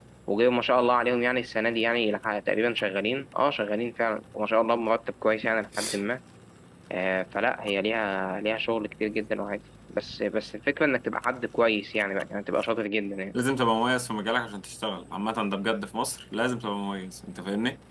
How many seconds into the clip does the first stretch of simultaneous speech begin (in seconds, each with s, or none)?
none